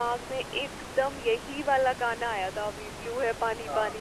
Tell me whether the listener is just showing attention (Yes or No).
Yes